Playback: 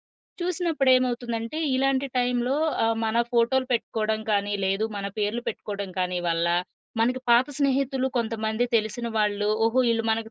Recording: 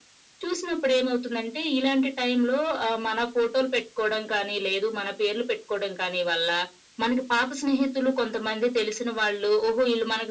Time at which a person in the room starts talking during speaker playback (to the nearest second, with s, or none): none